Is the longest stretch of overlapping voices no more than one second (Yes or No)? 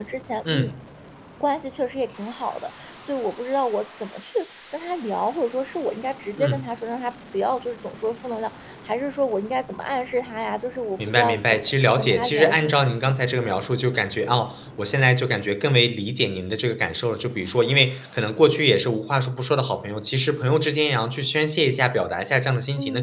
No